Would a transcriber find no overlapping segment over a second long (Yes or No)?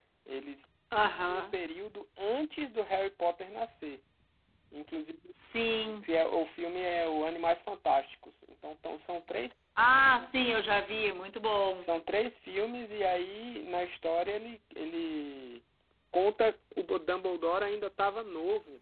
Yes